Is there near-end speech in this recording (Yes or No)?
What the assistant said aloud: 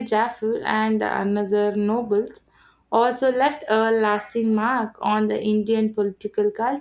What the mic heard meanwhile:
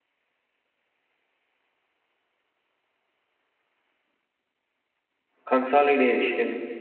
Yes